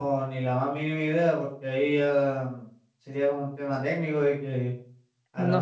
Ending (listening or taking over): listening